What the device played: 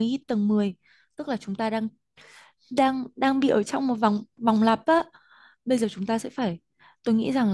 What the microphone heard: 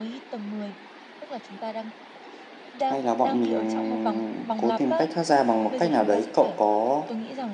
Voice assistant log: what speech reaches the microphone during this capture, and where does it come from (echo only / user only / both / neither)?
both